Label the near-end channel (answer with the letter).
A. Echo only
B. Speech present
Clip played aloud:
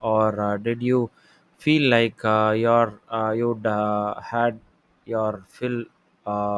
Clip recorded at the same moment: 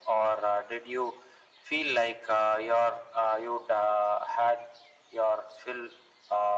A